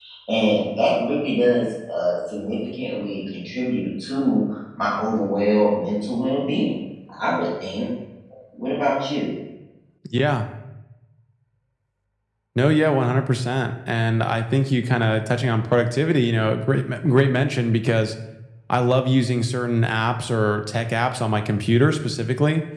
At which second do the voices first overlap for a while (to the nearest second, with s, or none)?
none